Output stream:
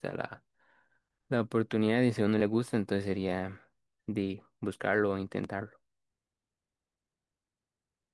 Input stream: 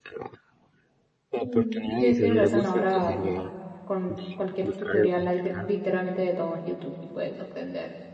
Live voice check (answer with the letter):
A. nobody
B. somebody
B